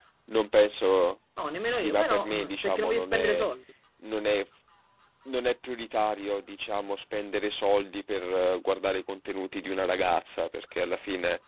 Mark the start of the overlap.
1.7 s

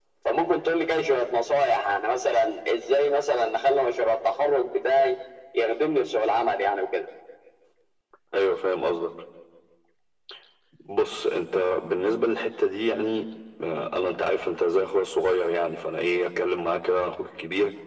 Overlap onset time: none

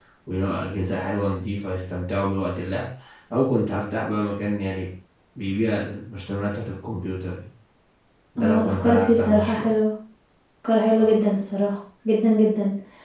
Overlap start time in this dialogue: 8.4 s

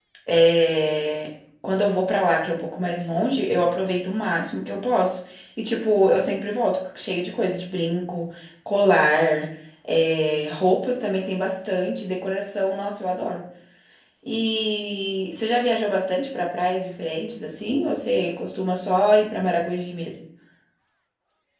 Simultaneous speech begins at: none

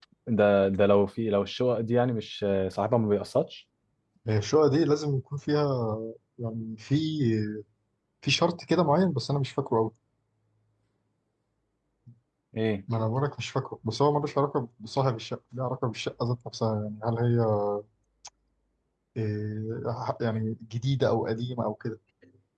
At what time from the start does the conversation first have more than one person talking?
none

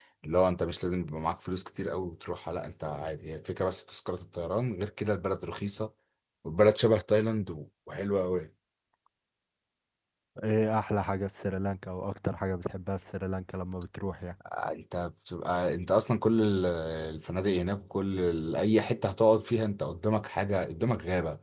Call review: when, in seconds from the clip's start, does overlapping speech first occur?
none

